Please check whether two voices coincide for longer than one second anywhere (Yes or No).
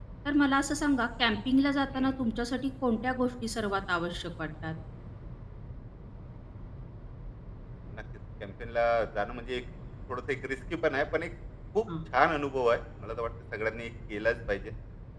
No